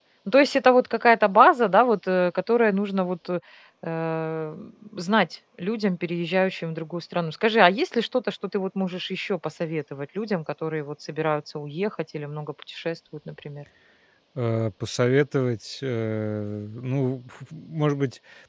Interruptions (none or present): none